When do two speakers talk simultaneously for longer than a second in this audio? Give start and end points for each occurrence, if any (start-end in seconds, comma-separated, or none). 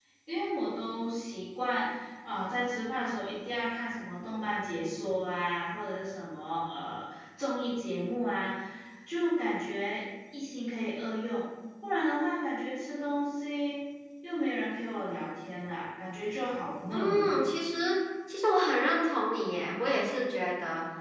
none